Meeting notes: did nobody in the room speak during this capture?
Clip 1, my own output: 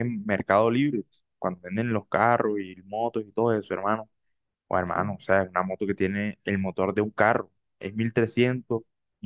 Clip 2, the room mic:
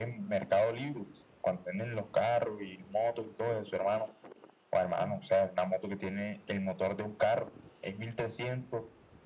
Yes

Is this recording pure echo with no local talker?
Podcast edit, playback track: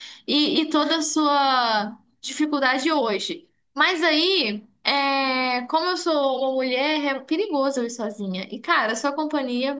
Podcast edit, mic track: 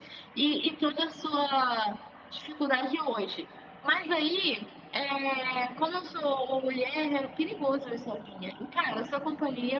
Yes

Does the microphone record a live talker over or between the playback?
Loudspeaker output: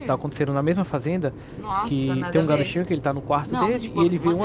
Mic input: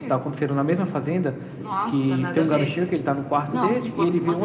No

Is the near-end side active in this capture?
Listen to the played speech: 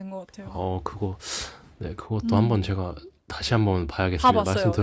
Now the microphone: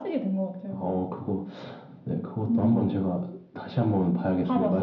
No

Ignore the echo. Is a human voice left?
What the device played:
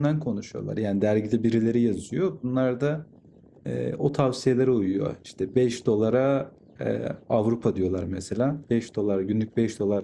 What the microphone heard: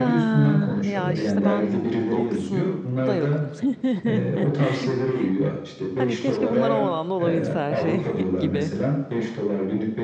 Yes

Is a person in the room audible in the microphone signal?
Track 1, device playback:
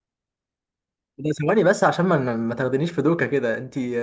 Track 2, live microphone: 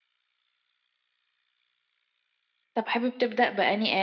Yes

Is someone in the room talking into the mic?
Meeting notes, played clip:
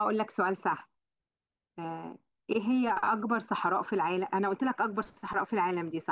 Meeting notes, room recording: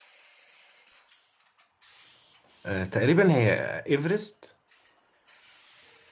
Yes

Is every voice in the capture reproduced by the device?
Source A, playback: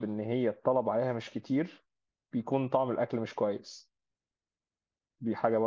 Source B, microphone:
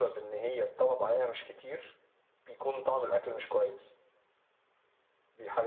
Yes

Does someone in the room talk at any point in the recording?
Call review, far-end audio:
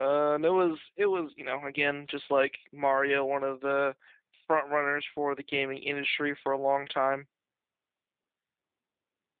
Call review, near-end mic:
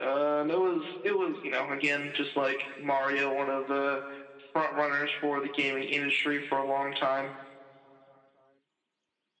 No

